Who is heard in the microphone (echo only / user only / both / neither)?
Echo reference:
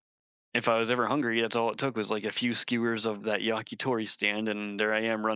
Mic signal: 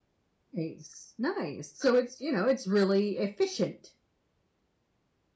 user only